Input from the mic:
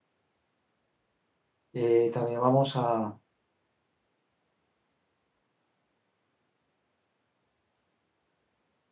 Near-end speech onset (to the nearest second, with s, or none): 2 s